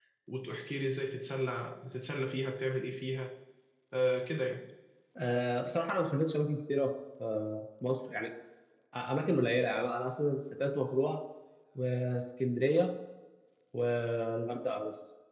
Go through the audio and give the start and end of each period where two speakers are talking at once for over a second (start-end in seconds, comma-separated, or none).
none